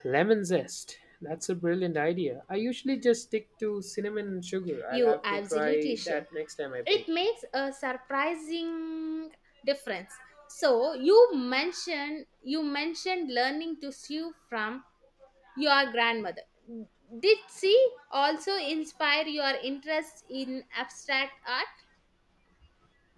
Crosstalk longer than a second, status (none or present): present